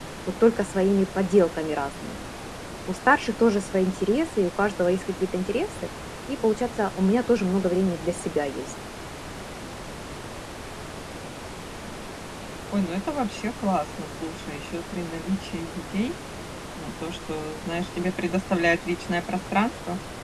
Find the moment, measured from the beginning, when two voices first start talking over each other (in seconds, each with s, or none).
none